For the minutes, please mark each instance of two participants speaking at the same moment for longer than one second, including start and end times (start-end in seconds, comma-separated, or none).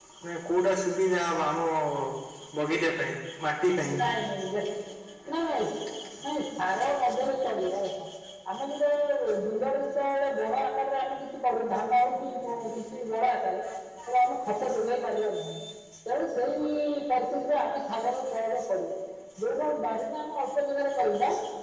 none